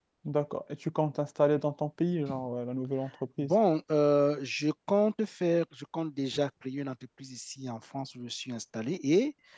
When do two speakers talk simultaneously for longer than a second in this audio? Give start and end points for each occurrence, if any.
none

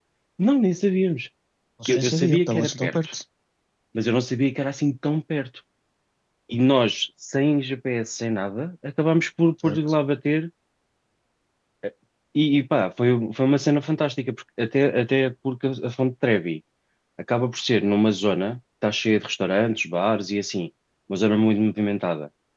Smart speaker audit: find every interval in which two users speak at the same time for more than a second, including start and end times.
1.9-3.1

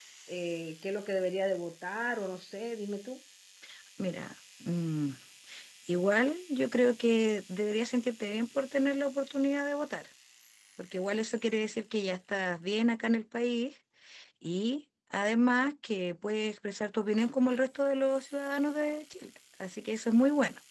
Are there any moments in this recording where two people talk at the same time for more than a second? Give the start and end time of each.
none

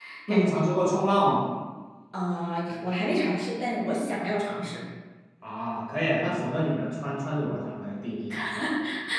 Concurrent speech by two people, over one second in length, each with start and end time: none

